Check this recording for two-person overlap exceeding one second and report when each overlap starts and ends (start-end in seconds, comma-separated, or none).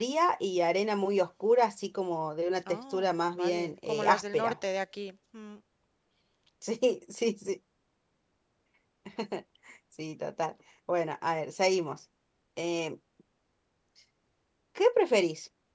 2.7-4.5